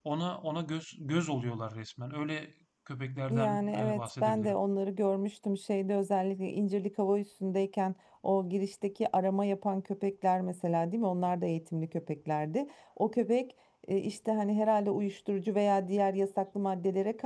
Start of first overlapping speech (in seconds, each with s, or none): 3.3 s